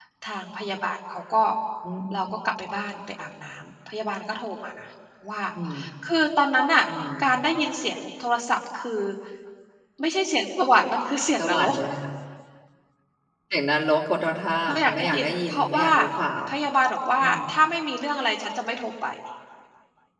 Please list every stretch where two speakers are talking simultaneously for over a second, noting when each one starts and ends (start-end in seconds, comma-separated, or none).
14.7-15.9